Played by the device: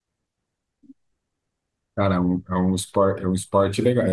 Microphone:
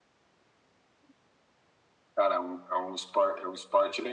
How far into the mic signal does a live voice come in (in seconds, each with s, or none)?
none